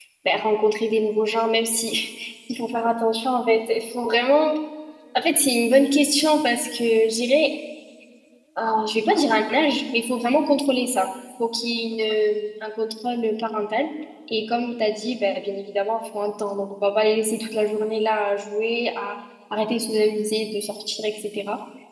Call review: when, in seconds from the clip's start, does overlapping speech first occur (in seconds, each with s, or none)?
none